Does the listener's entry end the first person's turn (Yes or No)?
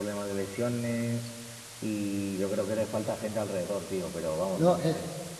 Yes